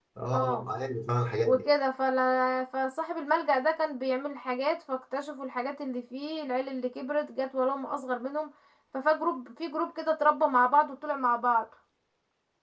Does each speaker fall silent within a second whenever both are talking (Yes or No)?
Yes